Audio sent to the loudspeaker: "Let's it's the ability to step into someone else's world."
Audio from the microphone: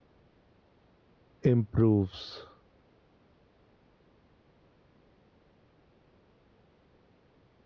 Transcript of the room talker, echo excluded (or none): improves